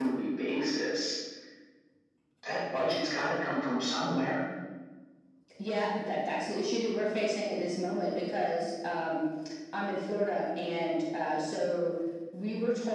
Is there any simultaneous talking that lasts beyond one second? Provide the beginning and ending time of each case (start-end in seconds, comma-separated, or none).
none